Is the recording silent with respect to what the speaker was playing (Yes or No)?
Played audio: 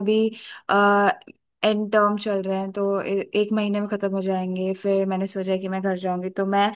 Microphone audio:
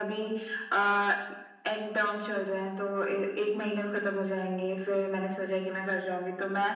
No